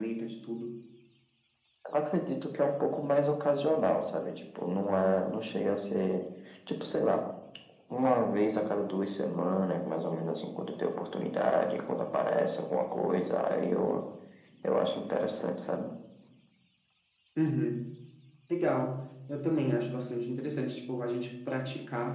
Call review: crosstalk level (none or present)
none